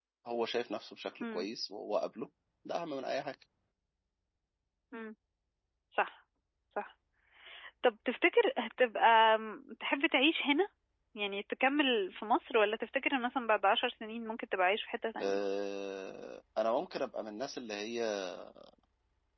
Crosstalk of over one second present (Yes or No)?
No